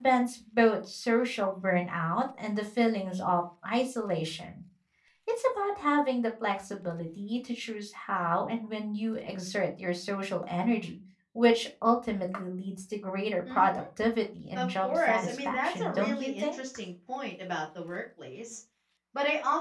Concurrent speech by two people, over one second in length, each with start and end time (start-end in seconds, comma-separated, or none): 14.6-16.6